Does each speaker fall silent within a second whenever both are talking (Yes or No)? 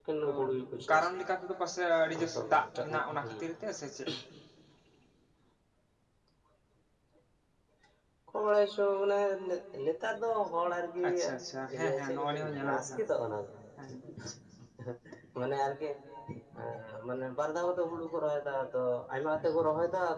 No